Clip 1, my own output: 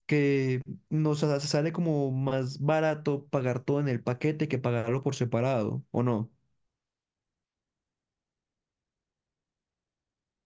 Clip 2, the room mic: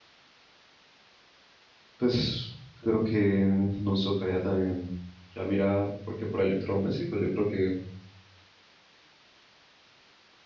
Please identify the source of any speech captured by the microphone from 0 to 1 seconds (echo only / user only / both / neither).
neither